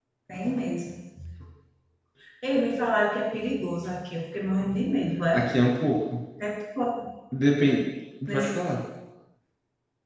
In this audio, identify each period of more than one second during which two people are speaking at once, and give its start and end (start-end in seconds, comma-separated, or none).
none